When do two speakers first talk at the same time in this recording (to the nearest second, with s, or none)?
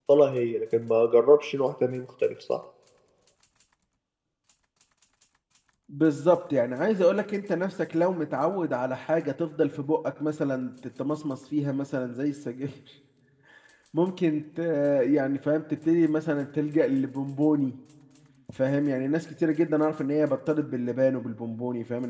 none